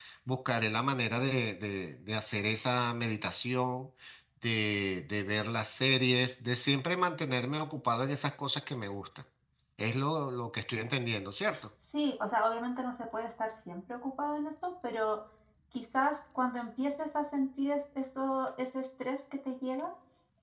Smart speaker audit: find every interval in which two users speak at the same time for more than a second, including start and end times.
none

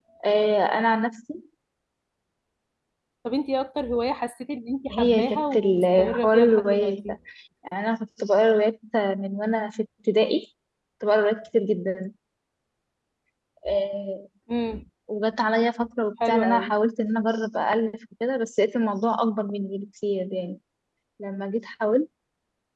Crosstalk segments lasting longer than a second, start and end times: 4.9-7.2

